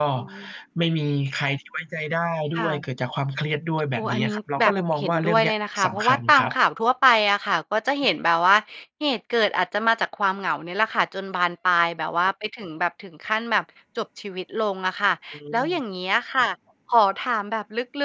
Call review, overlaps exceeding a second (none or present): present